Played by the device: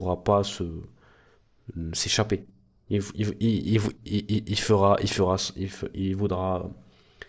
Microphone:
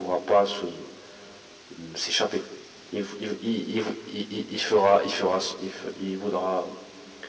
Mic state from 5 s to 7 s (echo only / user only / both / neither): echo only